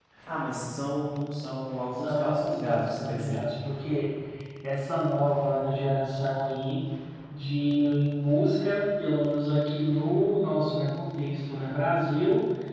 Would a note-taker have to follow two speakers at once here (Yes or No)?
Yes